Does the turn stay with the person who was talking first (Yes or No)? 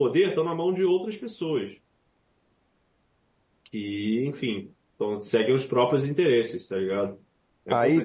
No